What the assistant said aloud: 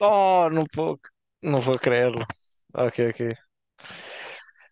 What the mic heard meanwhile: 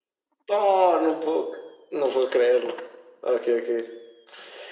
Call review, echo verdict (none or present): present